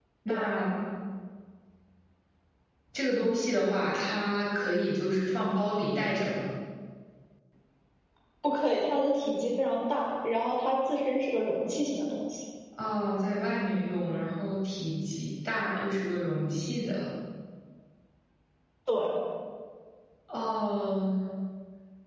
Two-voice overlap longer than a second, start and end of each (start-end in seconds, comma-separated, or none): none